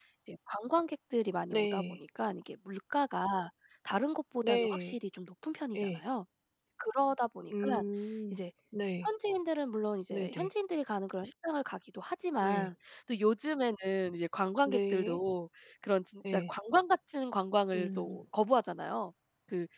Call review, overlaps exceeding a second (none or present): none